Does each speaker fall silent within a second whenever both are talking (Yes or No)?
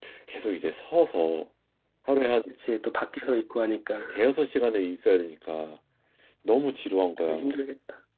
Yes